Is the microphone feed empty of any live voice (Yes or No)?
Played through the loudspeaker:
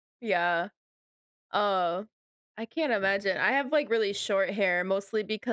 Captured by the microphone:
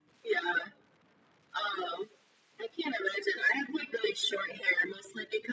Yes